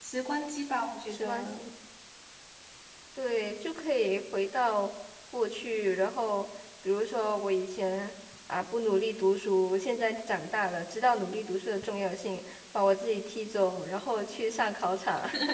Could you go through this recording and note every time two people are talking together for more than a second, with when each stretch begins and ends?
none

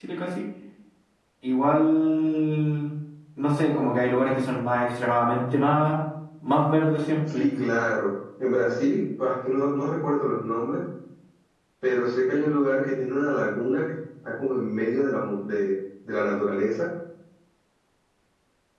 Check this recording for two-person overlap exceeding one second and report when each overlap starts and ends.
none

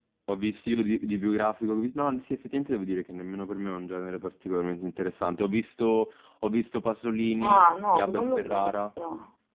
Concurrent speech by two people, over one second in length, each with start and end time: 7.4-8.8

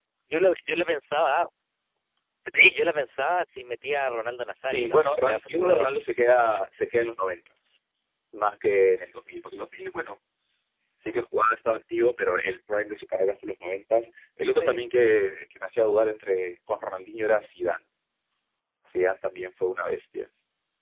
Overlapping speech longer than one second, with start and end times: 4.7-5.9

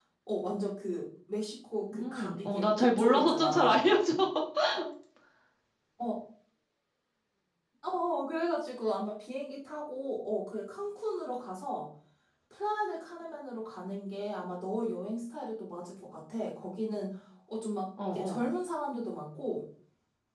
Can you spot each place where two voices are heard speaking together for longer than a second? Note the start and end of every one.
2.0-3.8

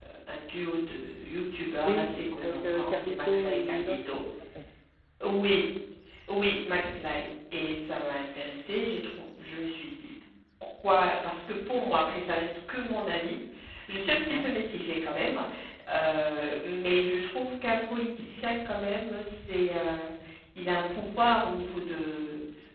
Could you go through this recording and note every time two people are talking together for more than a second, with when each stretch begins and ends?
1.8-4.1

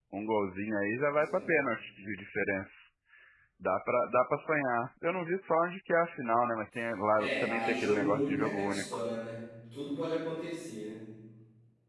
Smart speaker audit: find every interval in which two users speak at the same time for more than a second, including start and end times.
7.2-9.0

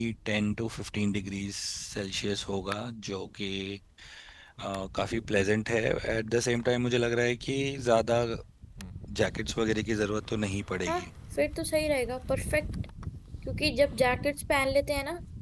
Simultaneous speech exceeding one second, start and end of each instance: none

